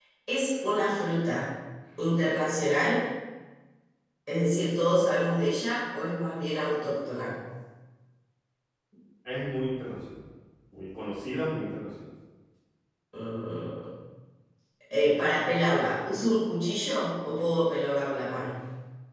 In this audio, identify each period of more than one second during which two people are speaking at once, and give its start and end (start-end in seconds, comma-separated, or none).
none